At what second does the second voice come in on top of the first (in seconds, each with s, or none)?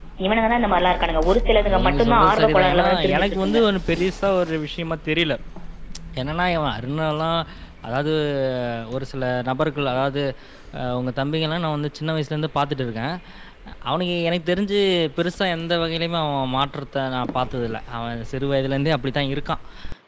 1.5 s